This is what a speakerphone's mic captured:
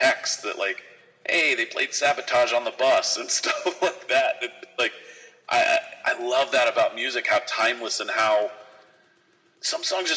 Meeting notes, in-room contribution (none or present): none